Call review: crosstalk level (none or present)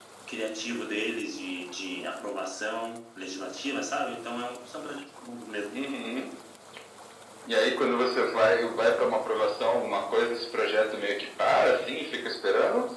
none